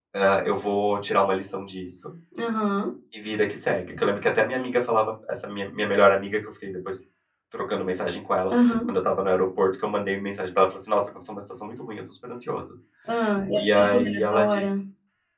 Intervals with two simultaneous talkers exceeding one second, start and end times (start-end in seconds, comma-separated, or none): 13.6-14.8